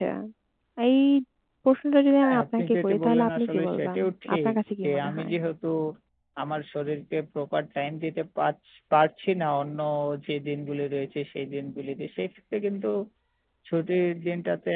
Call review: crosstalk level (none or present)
present